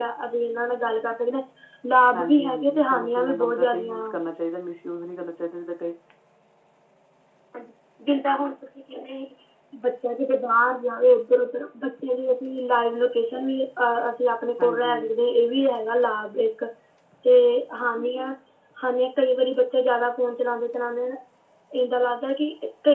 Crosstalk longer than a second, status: present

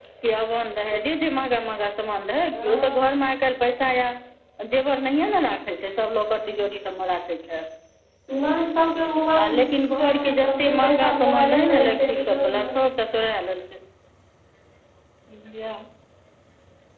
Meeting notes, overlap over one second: present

